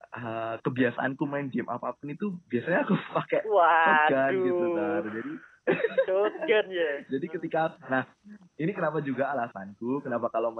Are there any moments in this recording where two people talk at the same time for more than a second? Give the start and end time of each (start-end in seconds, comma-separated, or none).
3.8-5.0